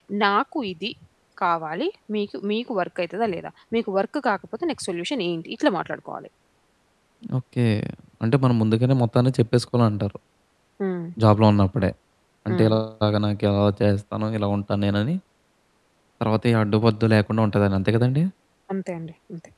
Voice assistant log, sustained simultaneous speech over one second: none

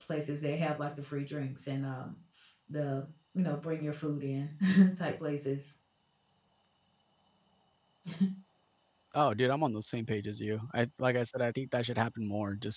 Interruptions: none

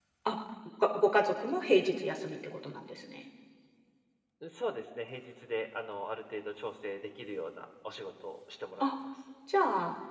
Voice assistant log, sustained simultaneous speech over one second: none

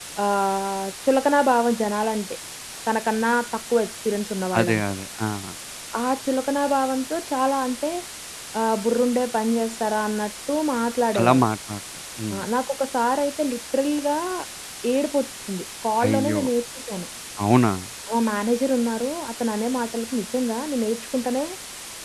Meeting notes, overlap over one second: none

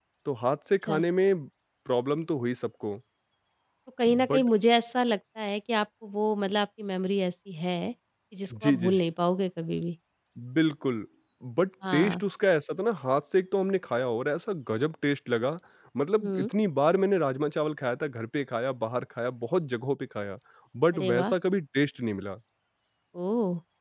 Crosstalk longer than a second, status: none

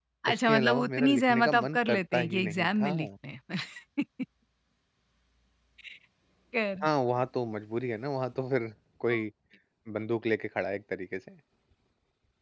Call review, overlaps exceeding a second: present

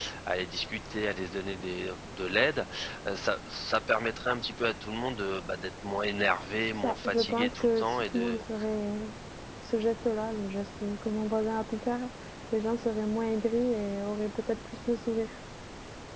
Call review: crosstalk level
present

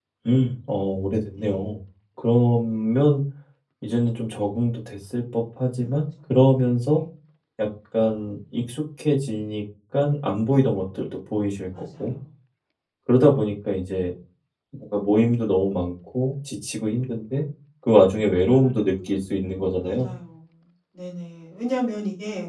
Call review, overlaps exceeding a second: none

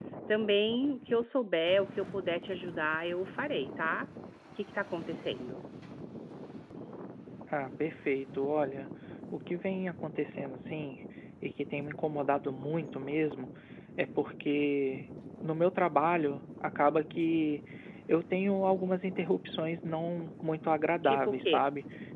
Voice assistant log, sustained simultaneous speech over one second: none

